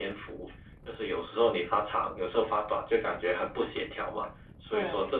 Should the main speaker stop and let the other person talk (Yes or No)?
No